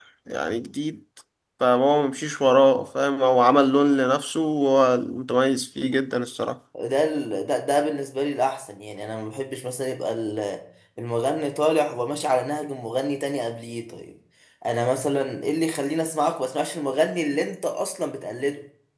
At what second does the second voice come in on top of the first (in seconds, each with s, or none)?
none